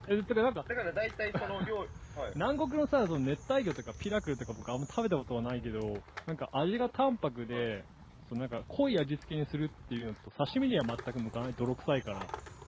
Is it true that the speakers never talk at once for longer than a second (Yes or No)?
Yes